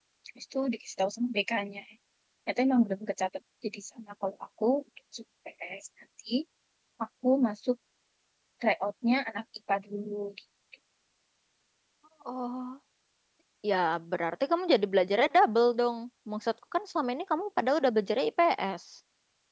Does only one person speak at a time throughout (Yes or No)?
Yes